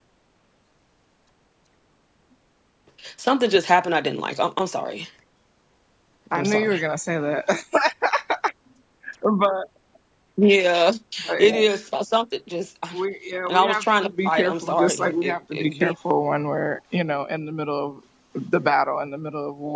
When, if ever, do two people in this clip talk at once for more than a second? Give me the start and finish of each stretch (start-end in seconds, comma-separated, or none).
13.5-15.9